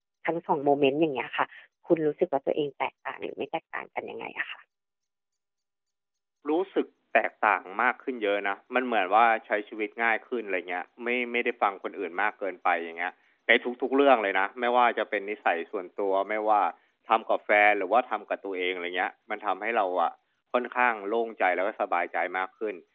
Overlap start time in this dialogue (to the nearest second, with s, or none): none